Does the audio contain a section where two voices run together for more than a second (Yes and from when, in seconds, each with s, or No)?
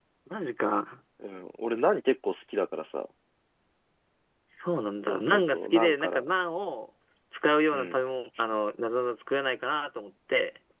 Yes, from 5.0 s